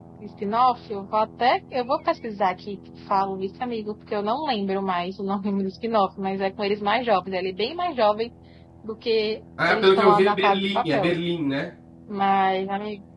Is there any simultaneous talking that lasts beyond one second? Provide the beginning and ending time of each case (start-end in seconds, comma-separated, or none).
9.7-11.1